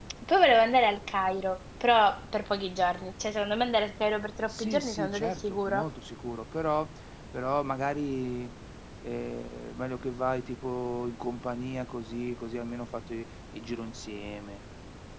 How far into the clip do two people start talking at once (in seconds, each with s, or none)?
4.5 s